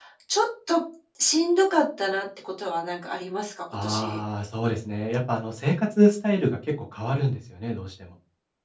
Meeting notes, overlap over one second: none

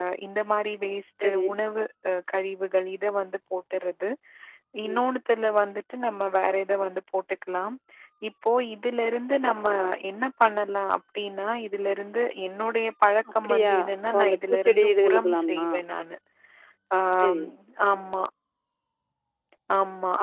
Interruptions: present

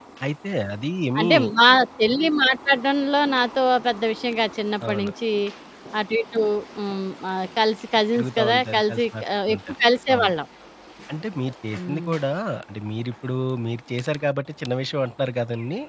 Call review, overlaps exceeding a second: present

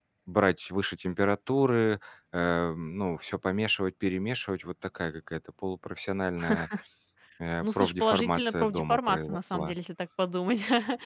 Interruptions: present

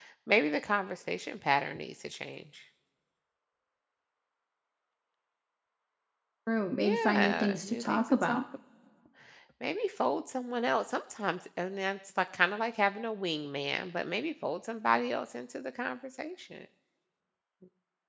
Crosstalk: present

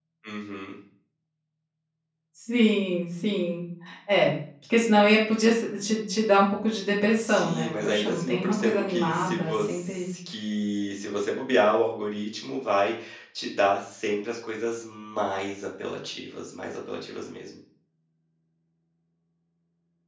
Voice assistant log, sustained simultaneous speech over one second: present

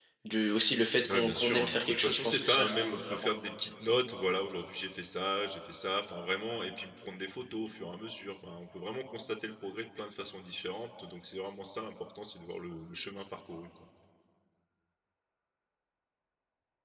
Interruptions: present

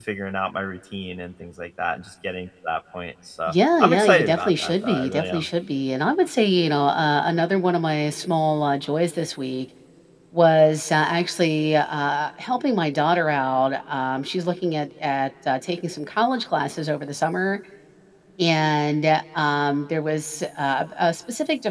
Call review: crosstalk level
present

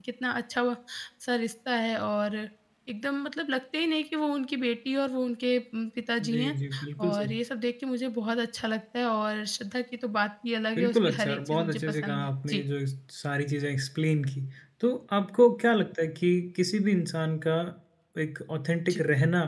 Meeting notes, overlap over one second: present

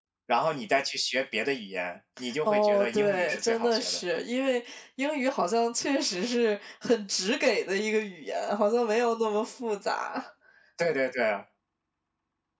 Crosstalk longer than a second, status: present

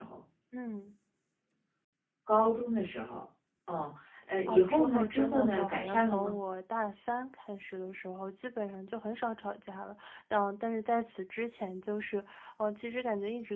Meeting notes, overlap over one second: present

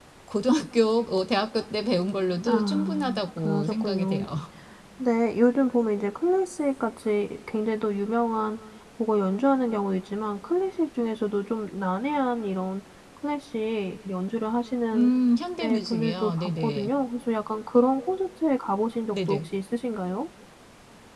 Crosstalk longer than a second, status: present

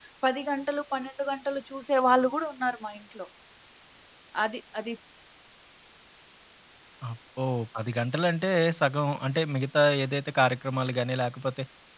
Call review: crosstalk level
none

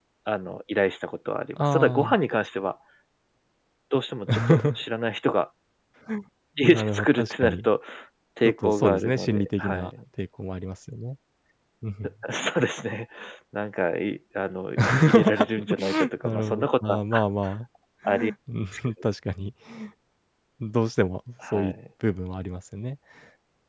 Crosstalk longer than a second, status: present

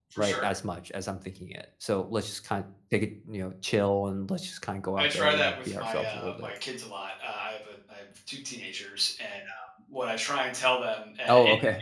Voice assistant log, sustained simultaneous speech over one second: present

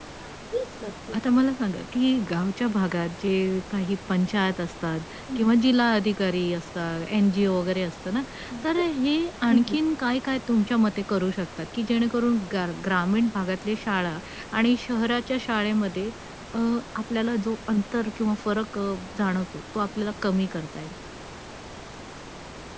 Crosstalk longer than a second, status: none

